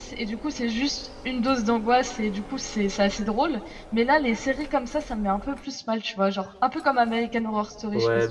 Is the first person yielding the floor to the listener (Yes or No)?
Yes